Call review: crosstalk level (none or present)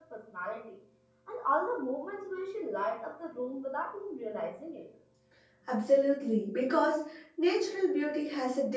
none